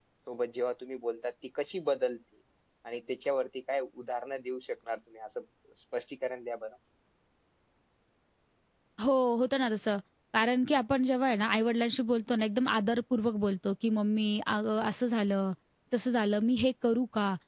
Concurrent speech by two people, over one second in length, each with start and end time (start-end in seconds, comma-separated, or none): none